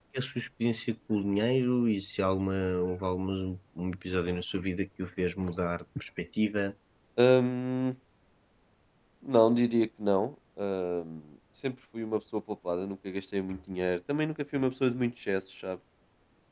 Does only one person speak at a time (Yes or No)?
Yes